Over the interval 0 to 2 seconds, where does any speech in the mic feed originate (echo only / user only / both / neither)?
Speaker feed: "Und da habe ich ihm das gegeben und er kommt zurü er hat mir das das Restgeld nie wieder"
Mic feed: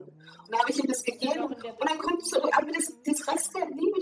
both